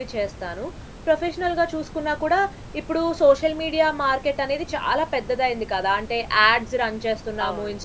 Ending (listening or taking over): listening